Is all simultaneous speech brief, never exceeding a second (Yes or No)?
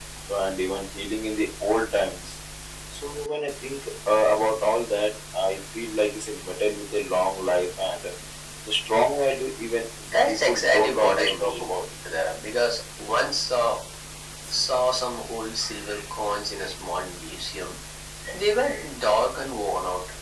No